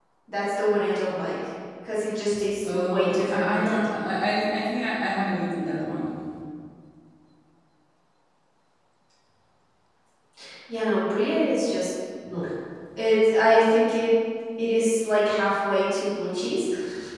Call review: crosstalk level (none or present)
present